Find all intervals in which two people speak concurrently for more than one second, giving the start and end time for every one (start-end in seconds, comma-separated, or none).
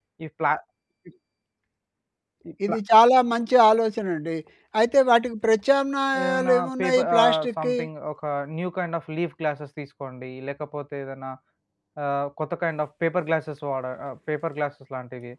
6.2-7.8